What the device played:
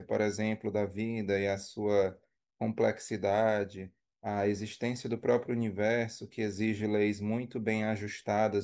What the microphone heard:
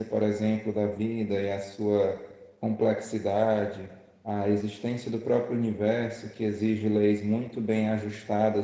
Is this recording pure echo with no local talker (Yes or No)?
Yes